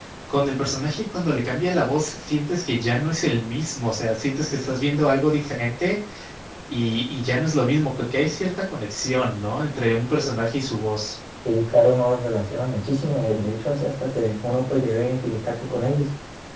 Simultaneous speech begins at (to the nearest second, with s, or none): none